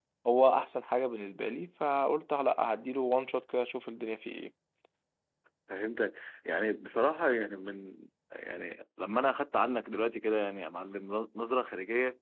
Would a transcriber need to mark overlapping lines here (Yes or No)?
No